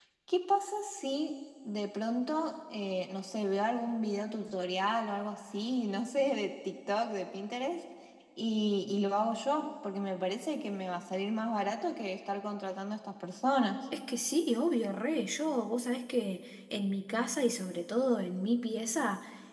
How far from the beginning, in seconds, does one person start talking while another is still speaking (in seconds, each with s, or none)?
none